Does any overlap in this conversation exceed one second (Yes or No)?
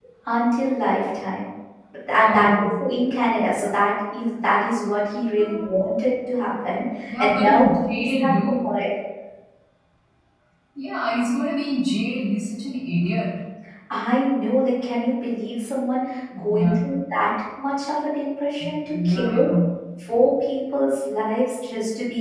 Yes